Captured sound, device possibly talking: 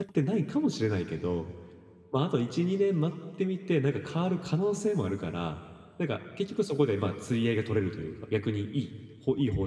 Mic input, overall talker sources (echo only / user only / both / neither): user only